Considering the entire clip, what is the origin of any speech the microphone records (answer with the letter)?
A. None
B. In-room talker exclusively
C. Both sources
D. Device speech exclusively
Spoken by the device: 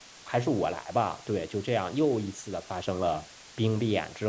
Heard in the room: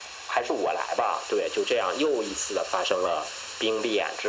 D